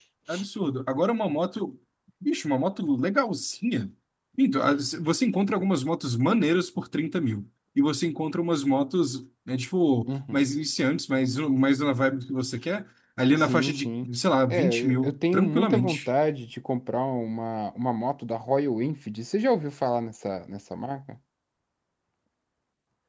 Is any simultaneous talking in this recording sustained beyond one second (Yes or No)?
Yes